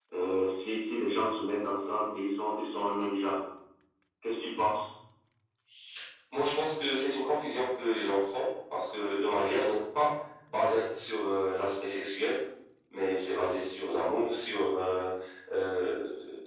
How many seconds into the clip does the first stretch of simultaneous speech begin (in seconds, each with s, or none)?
none